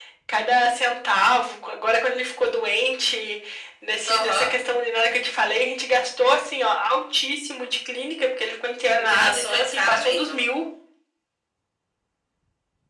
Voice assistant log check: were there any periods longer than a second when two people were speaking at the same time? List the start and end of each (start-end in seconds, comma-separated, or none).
9.0-10.4